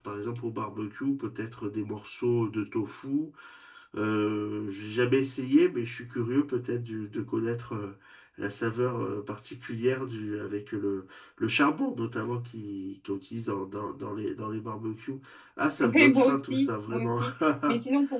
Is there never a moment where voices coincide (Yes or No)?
No